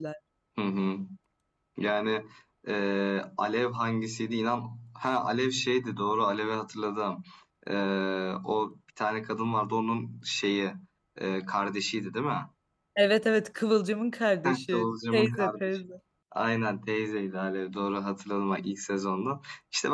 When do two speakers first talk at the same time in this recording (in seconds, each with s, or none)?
14.4 s